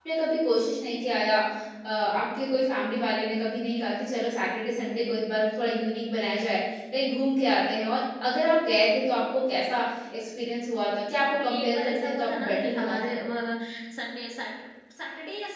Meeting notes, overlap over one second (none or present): present